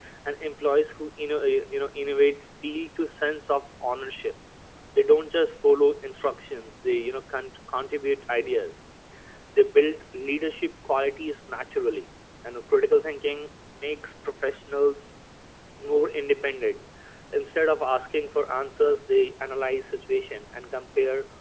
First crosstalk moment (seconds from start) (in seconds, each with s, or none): none